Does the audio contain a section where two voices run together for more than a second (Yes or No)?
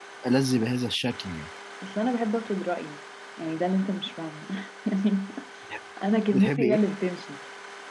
No